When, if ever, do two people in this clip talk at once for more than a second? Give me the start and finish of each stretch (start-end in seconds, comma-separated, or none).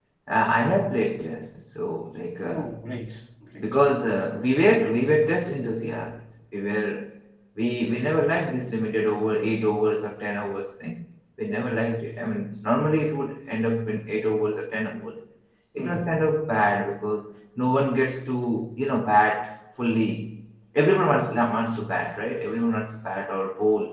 none